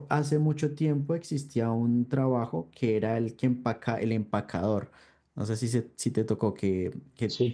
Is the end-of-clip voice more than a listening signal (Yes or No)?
Yes